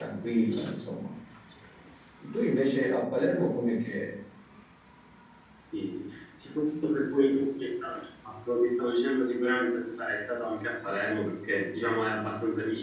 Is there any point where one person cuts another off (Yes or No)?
No